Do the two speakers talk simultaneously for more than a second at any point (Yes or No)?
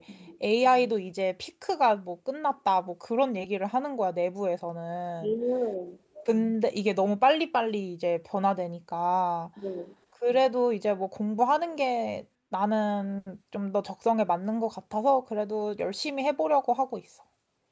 No